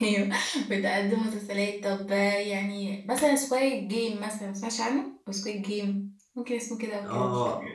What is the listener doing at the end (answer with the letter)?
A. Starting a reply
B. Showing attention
A